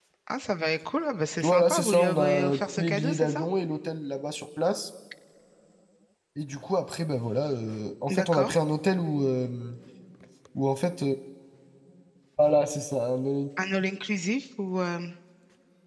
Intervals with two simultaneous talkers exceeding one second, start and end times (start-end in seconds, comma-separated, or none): 1.4-3.5